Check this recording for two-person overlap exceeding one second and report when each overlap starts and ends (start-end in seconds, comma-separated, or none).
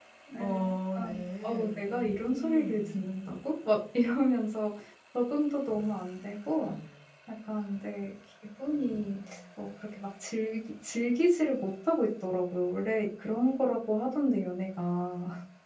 1.0-3.0